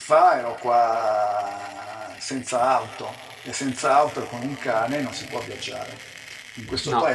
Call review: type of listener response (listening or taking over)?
listening